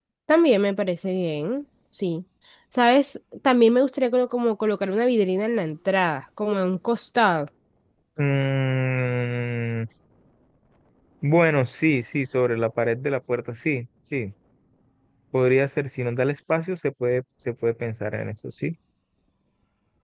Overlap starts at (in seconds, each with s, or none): none